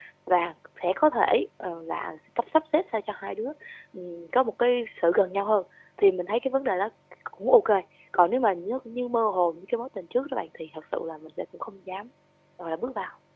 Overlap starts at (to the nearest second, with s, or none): none